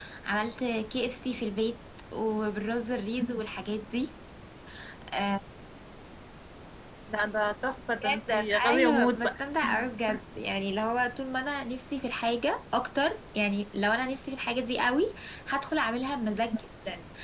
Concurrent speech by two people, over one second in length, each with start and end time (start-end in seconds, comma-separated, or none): 8.1-9.4